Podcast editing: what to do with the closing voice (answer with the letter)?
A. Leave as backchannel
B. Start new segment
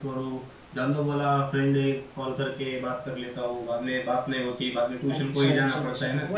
B